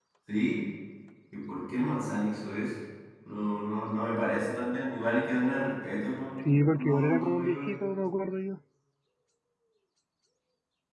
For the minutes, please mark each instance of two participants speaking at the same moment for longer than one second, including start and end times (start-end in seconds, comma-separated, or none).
6.4-7.8